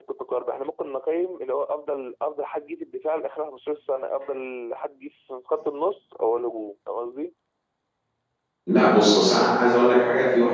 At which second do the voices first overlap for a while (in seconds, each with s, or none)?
none